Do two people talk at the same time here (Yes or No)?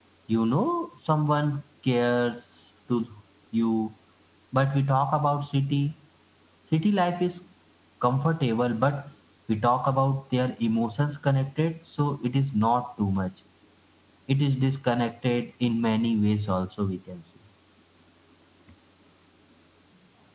No